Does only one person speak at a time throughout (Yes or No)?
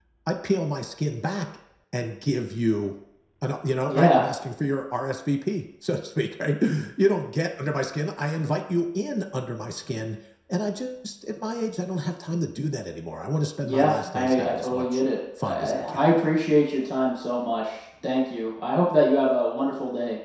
No